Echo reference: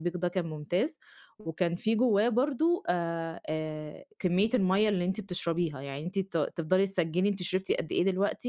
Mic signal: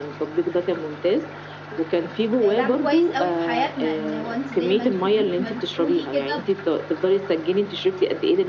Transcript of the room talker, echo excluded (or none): لعب كويس أوي في حياتنا، إن هو أنتِ زي ما أنتِ ما أنتِ ما بتقولي كده،